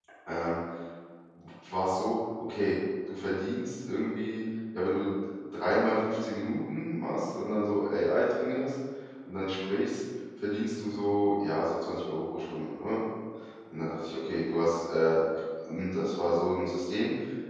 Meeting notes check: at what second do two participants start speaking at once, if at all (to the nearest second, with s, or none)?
none